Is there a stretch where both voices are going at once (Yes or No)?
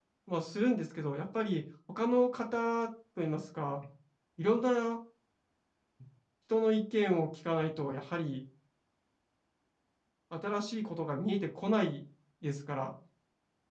No